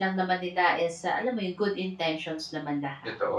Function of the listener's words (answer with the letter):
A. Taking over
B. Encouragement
A